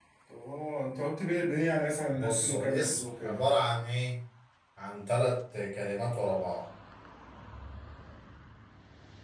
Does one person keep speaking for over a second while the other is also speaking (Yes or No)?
Yes